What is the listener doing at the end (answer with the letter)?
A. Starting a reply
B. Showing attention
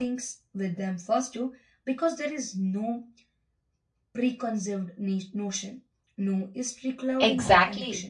A